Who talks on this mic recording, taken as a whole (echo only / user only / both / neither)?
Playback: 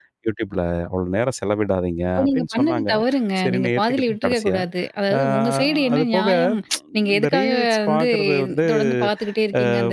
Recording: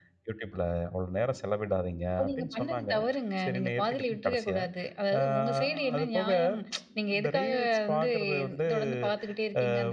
echo only